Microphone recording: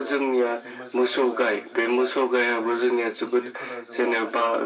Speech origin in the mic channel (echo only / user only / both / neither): both